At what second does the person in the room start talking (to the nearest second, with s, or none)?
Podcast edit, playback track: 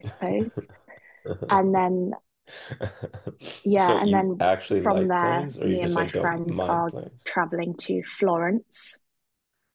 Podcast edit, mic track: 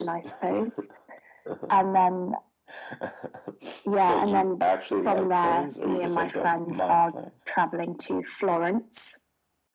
none